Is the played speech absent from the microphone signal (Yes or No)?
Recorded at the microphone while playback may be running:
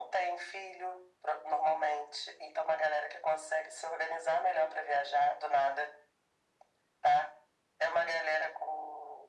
No